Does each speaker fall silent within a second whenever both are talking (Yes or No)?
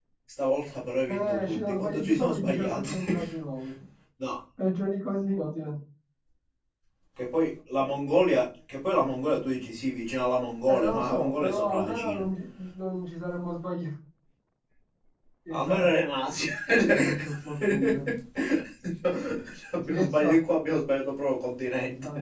No